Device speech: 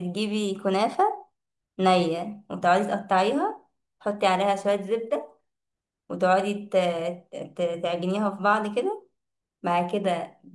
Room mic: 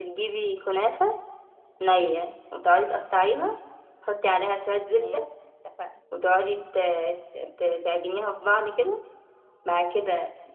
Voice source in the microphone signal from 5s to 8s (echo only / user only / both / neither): both